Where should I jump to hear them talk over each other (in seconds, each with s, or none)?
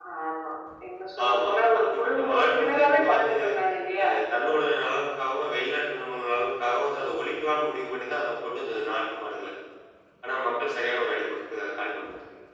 1.2 s